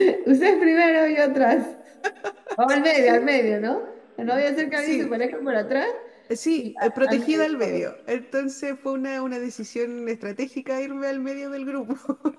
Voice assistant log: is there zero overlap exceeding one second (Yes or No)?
No